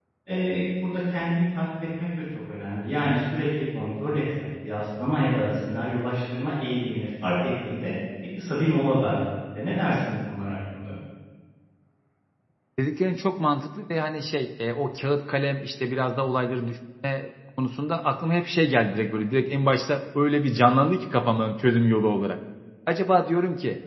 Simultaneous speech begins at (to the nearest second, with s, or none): none